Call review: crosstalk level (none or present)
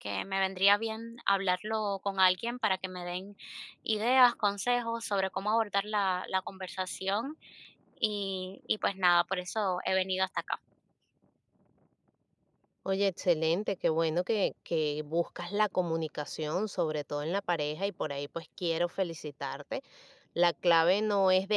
none